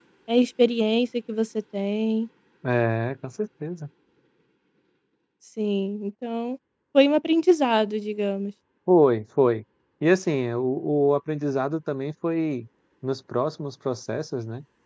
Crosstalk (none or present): none